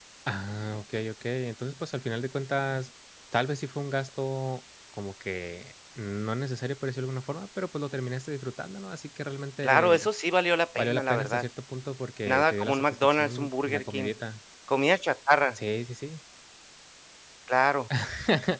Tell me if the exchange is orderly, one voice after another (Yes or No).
No